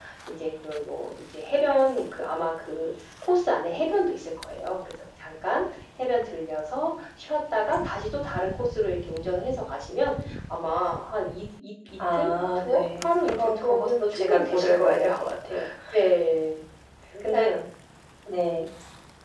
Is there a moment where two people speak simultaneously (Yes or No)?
Yes